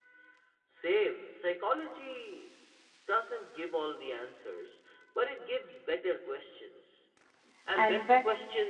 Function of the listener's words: listening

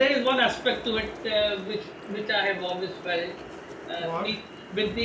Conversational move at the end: listening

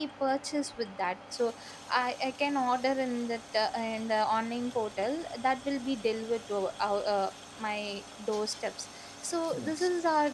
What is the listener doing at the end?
listening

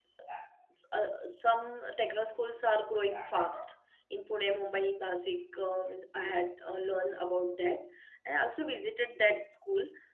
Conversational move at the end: listening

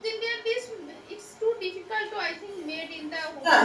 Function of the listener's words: taking over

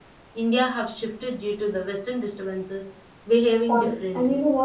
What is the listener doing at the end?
taking over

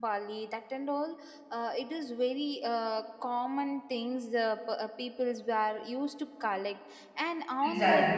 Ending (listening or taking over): listening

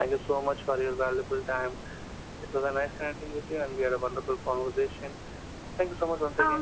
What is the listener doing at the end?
taking over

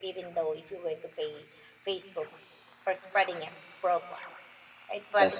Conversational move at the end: listening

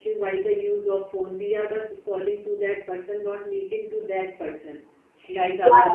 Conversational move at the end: taking over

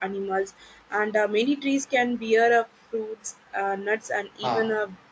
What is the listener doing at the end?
listening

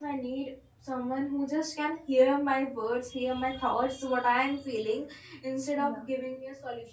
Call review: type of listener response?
listening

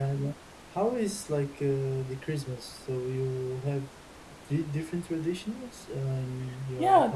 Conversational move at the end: taking over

